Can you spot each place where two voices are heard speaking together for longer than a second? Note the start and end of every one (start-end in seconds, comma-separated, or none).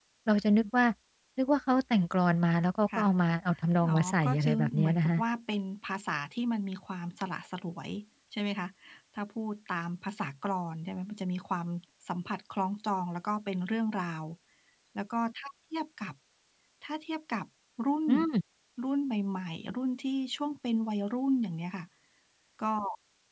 3.9-5.2